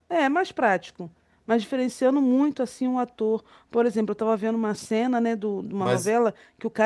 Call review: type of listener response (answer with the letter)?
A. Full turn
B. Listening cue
B